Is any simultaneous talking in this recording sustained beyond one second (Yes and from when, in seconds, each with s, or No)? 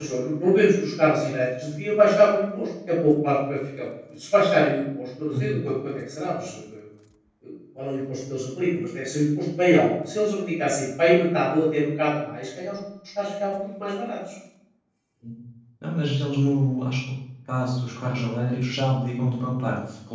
No